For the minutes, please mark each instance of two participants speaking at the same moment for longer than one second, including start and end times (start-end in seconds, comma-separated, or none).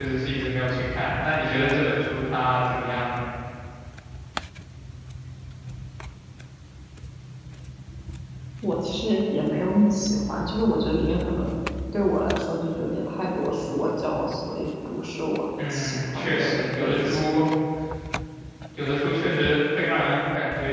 15.7-17.3